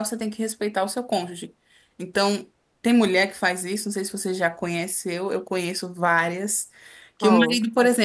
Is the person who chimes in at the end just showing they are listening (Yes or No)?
Yes